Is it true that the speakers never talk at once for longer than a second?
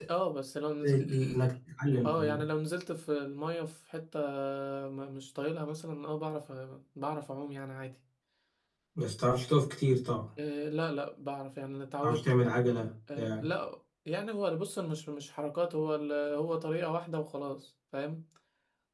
Yes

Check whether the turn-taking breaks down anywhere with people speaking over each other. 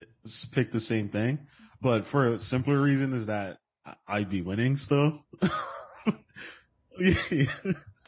No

